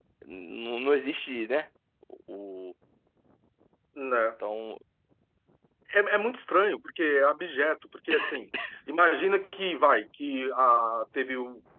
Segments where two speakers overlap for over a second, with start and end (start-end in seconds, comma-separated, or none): none